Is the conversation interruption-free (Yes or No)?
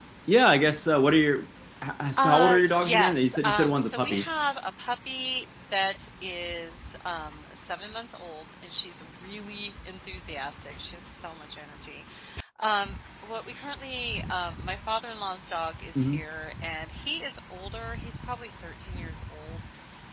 No